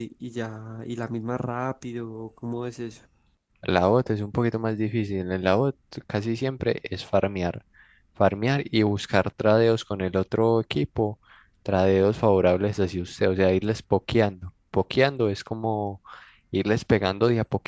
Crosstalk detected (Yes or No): No